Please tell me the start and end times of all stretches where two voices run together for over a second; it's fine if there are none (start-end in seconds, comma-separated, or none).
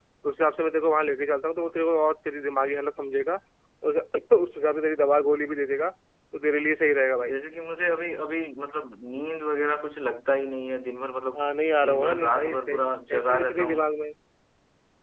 11.9-13.8